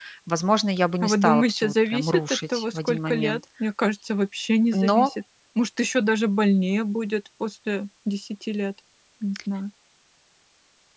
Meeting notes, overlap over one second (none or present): present